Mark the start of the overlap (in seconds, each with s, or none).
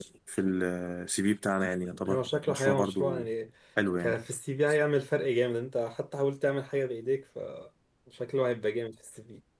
2.1 s